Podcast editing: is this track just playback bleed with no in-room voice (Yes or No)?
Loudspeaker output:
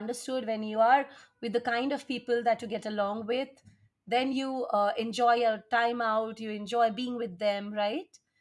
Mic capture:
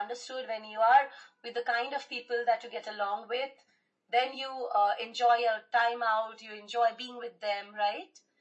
Yes